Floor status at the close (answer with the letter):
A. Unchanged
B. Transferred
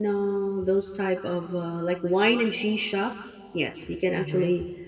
A